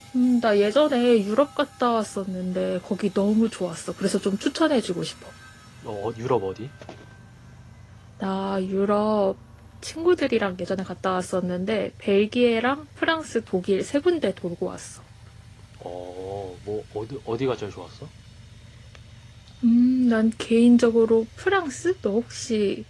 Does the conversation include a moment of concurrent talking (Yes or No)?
No